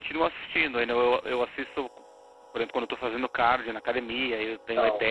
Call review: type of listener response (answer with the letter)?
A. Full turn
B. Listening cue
B